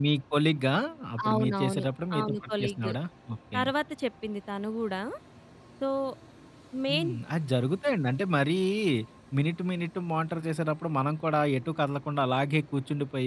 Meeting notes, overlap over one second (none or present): present